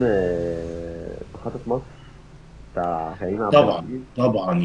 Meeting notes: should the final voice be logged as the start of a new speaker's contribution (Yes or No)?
Yes